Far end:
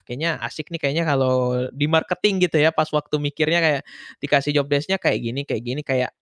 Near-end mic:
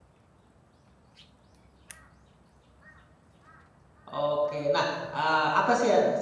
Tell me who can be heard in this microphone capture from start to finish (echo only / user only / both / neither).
user only